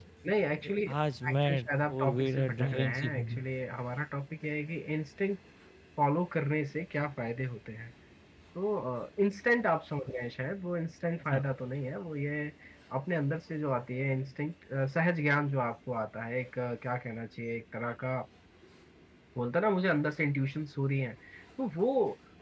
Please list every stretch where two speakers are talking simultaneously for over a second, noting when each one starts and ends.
1.3-3.4

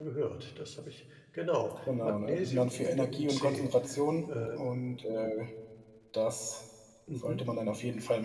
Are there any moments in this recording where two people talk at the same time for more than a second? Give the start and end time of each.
2.0-3.6

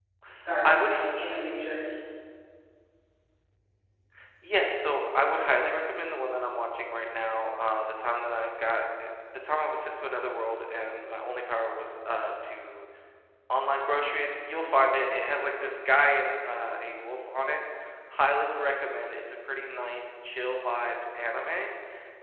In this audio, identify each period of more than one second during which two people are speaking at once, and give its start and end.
none

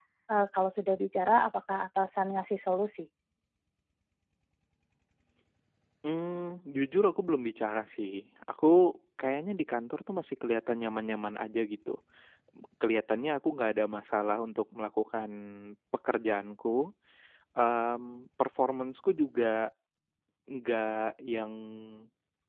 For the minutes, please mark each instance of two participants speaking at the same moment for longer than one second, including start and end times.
none

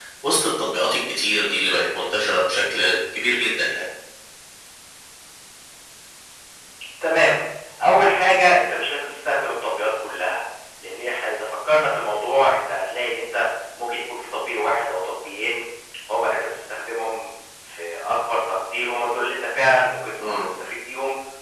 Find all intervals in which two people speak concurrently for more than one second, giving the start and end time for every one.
none

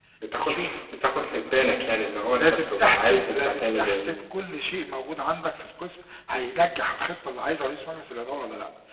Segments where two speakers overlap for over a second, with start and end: 2.4-4.0

